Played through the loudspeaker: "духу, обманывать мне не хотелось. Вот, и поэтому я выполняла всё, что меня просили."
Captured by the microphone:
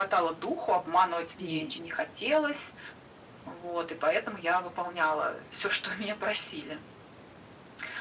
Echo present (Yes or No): Yes